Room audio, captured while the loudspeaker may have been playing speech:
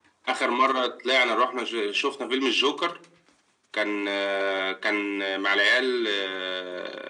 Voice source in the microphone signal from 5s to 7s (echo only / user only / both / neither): echo only